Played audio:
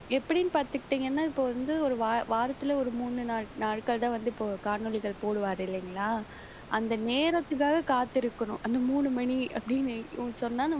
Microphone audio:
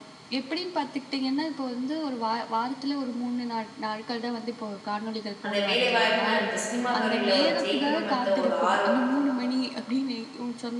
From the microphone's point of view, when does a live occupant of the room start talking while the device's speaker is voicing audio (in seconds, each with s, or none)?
5.5 s